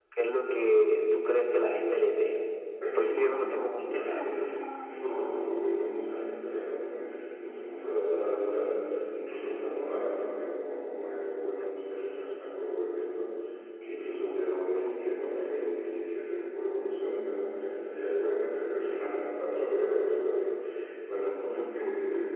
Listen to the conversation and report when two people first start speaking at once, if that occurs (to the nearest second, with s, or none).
3 s